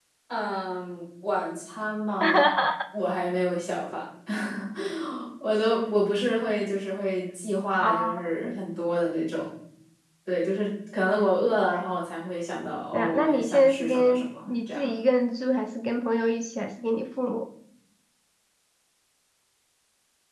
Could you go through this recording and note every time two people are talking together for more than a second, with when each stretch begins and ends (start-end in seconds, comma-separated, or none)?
12.9-14.9